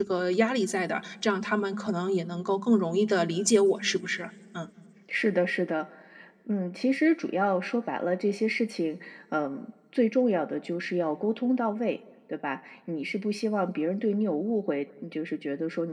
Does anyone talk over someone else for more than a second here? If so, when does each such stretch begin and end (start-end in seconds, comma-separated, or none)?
none